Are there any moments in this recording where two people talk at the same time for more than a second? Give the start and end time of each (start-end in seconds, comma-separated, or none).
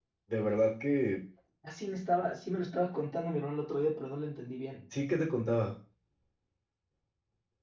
none